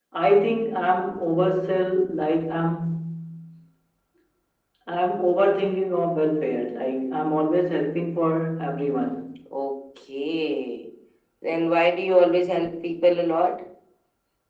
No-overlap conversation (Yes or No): Yes